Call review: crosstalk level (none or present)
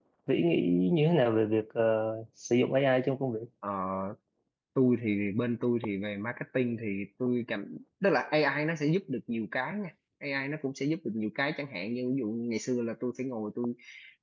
none